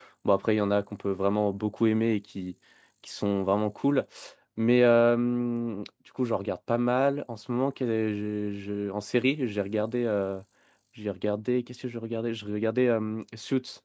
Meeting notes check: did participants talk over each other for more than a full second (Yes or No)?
No